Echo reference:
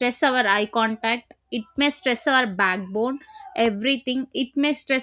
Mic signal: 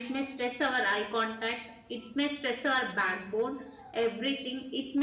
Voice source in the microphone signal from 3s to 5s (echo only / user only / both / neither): echo only